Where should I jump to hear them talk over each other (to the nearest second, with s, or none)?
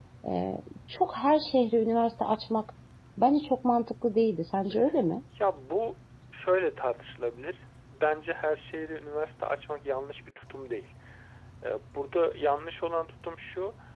none